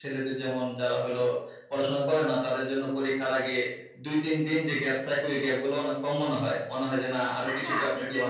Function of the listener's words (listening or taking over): taking over